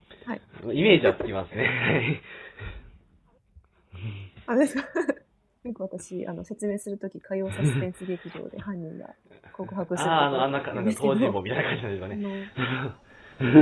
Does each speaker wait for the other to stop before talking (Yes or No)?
No